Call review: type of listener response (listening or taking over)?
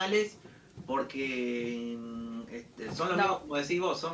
listening